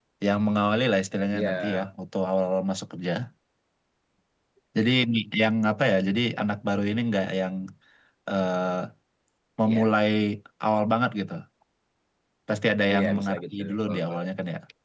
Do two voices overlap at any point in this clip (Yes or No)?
Yes